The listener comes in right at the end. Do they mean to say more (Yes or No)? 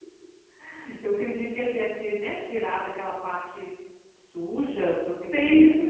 No